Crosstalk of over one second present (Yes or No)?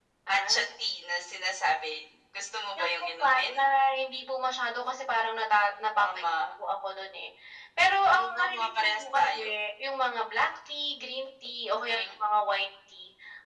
Yes